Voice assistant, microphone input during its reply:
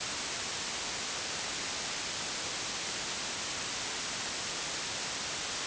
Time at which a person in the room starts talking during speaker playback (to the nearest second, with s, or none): none